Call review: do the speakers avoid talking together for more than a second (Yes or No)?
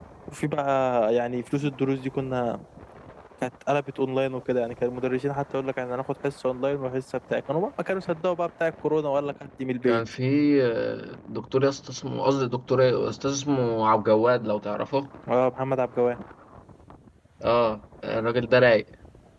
Yes